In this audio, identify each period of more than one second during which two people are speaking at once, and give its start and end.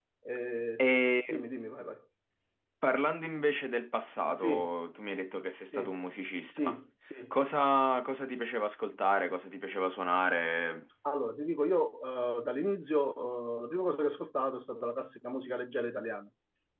none

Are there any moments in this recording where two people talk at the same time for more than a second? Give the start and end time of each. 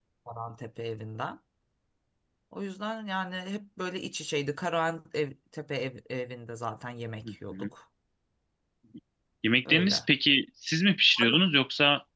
none

